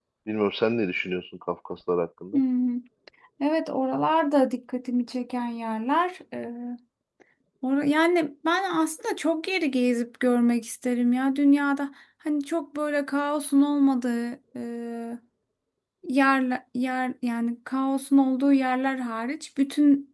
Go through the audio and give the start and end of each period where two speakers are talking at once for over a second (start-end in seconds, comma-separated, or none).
none